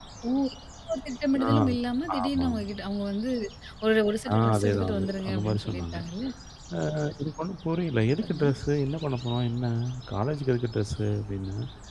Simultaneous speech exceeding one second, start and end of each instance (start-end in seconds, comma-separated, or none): 4.3-6.0